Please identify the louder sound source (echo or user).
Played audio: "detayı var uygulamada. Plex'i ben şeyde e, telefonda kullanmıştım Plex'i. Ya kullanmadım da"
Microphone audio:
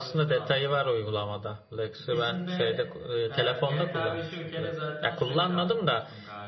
echo